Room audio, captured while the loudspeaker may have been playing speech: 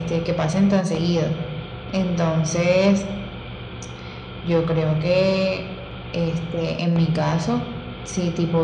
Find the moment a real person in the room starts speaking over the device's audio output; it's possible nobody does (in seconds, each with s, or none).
none